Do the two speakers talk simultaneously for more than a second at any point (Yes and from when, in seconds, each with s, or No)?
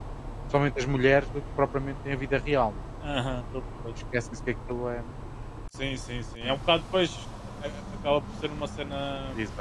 No